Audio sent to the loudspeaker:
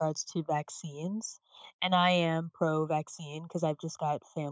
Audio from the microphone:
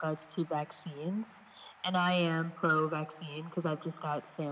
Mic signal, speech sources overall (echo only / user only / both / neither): echo only